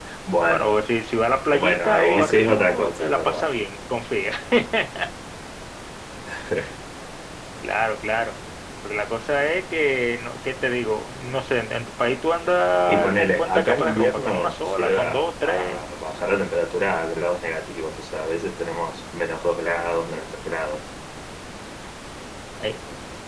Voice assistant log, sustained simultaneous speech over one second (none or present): present